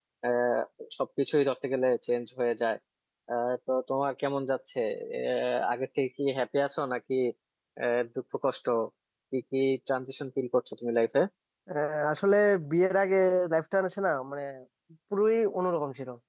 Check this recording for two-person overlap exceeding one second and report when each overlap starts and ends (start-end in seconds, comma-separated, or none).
none